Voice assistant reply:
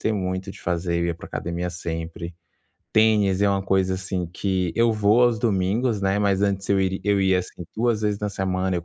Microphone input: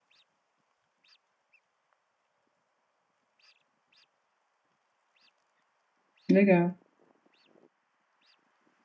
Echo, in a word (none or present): none